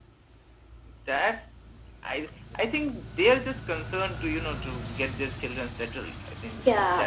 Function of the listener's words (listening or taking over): taking over